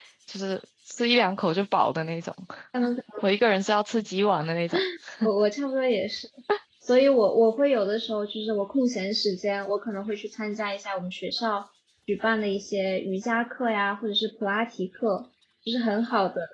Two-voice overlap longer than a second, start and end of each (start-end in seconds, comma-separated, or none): none